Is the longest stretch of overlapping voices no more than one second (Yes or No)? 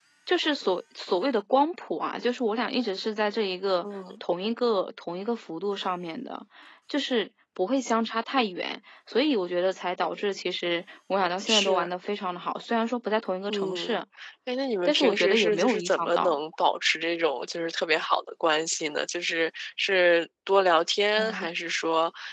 No